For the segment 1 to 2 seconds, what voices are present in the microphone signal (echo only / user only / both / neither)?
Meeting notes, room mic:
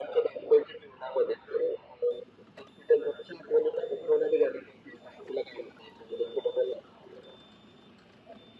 echo only